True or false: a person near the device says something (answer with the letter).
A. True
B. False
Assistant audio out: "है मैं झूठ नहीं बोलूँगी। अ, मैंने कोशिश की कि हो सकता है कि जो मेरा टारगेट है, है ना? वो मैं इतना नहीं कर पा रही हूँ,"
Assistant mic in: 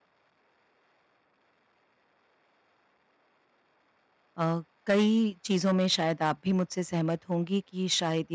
A